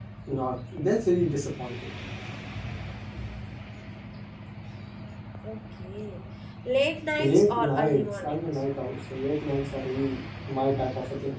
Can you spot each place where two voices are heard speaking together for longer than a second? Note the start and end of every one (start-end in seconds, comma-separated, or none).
7.2-8.4